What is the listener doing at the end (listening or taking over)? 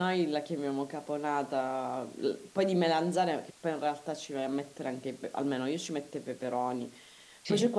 listening